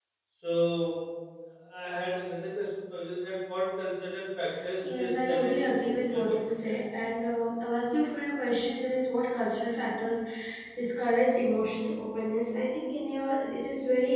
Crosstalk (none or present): present